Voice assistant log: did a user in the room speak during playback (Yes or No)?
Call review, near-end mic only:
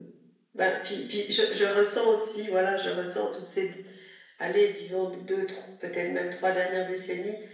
No